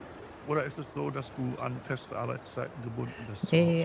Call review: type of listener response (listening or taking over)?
taking over